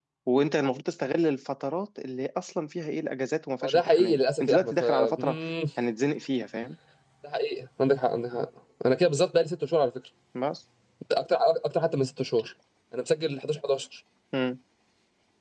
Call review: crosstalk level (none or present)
present